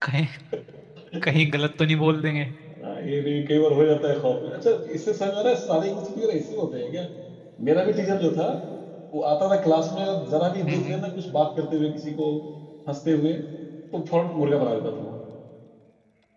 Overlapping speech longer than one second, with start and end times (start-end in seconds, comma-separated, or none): none